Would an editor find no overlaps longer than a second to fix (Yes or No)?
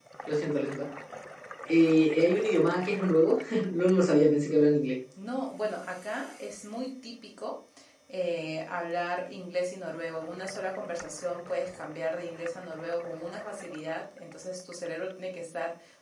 Yes